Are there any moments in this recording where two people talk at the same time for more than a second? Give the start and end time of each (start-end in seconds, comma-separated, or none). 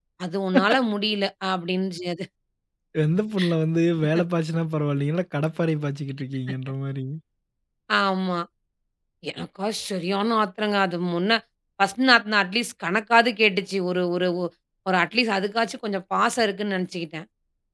none